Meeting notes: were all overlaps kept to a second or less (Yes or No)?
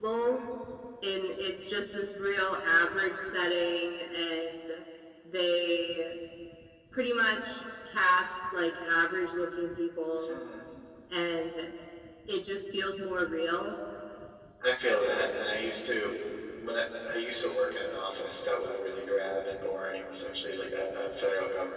Yes